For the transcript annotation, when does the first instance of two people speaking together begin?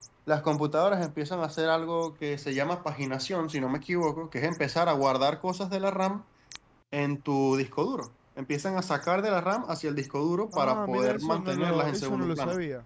10.5 s

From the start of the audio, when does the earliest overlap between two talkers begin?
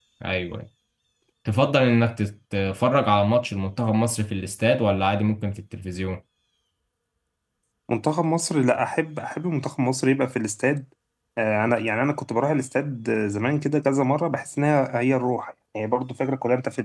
none

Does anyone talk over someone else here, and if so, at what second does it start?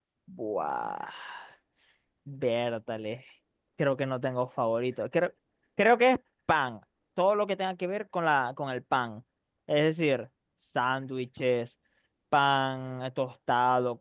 none

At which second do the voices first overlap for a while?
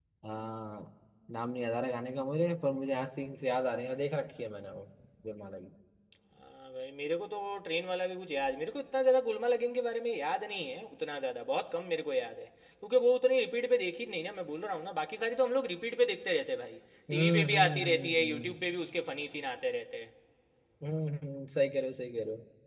17.1 s

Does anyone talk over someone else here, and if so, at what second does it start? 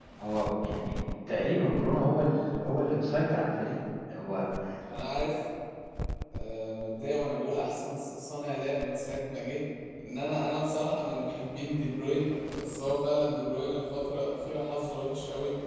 none

